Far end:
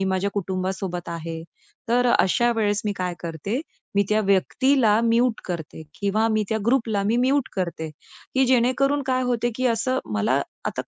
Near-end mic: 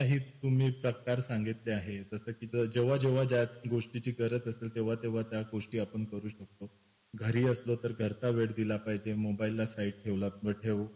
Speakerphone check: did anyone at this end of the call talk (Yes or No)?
Yes